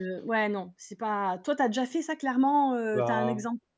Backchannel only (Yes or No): No